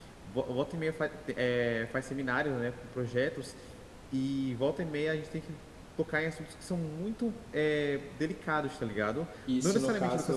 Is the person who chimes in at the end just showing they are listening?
No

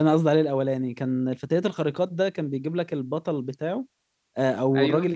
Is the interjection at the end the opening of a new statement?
No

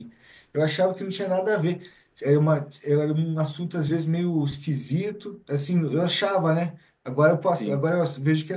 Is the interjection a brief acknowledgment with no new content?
Yes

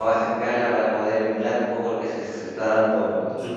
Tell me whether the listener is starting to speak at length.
Yes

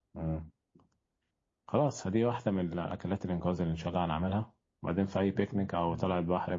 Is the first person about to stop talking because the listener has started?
No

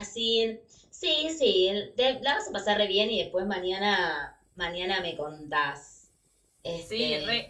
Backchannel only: No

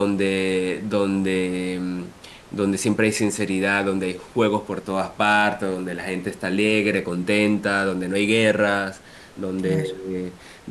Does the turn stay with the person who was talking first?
Yes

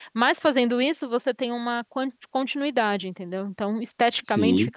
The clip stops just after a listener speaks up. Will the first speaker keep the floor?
No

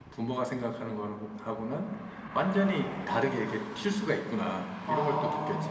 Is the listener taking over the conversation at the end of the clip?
Yes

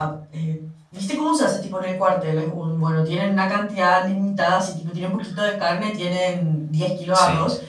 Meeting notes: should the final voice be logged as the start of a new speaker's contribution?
No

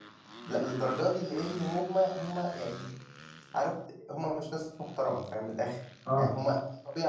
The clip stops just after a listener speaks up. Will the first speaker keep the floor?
Yes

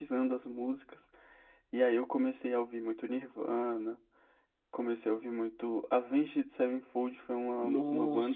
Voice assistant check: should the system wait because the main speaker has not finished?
No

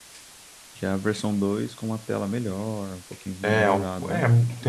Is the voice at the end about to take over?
Yes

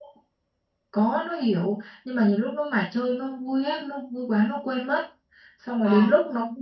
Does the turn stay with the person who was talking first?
Yes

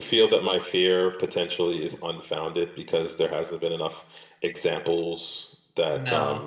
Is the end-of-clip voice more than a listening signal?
Yes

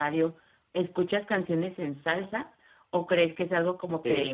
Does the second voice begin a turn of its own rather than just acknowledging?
No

